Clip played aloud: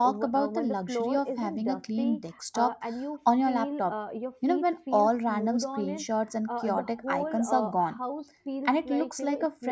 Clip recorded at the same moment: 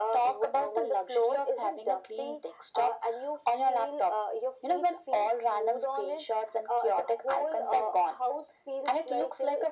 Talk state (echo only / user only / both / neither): echo only